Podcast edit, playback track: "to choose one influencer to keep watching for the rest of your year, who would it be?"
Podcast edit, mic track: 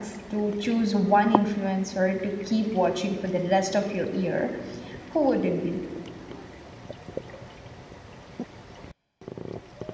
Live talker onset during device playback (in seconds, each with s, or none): none